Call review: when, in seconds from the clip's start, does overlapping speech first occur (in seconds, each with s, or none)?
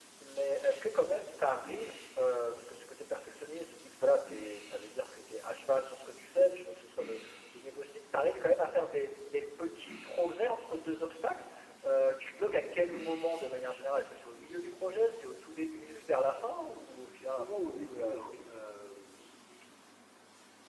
17.2 s